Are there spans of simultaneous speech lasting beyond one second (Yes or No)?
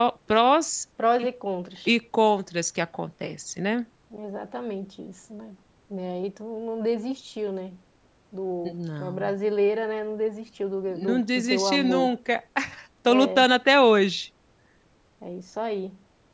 Yes